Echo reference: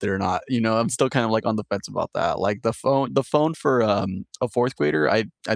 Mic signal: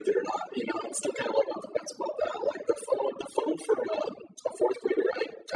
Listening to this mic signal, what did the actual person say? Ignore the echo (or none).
none